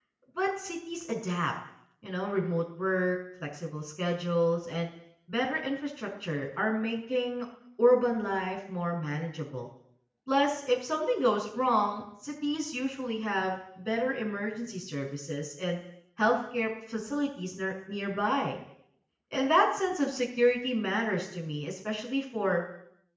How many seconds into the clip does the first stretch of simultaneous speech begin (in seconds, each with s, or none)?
none